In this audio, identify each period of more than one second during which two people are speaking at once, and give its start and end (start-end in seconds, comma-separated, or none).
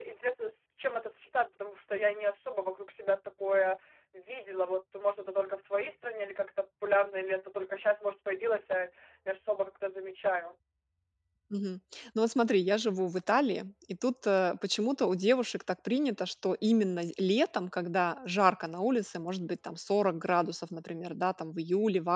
none